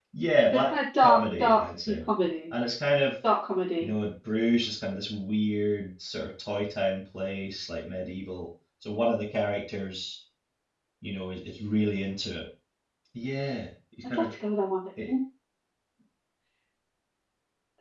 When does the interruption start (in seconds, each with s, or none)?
0.5 s